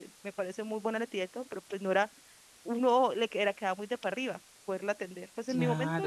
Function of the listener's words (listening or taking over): listening